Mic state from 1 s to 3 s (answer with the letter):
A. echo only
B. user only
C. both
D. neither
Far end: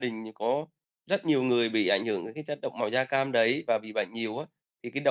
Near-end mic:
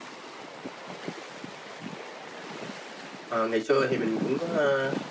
D